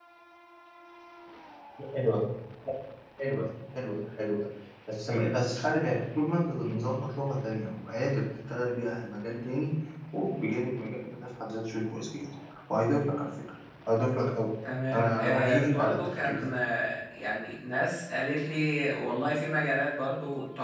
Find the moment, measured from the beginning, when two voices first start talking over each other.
14.9 s

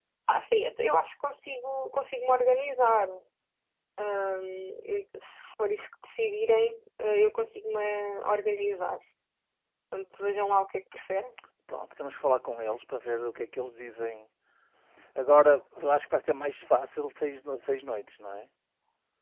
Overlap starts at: none

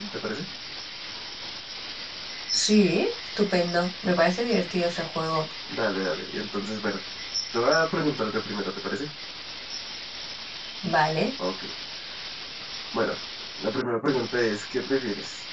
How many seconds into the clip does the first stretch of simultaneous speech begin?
none

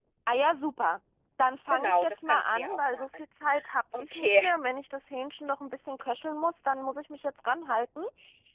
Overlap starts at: 1.7 s

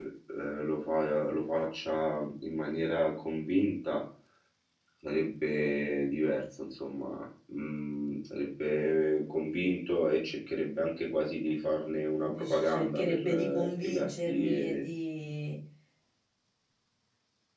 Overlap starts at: 12.3 s

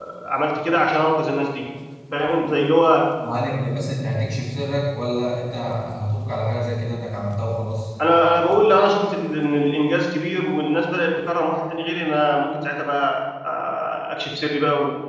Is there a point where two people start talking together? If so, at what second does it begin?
none

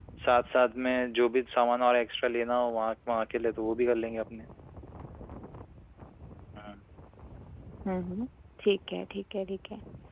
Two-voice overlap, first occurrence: none

